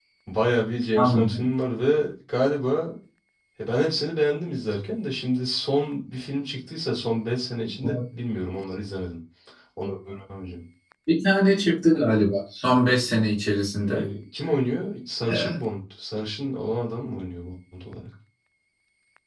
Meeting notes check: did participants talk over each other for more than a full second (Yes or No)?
No